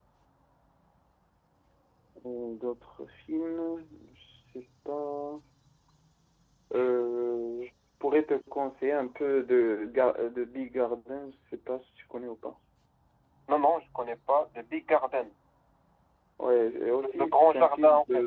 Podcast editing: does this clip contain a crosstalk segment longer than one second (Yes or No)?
Yes